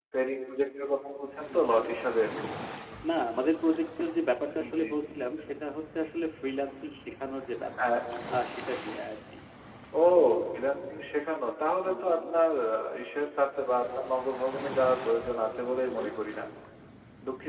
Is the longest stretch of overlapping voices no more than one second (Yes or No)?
Yes